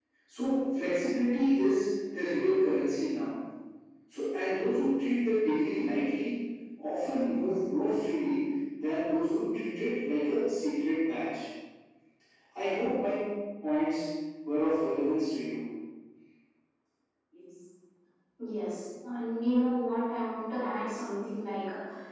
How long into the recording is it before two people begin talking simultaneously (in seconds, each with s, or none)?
none